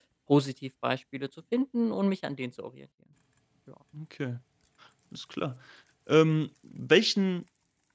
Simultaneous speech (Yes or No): No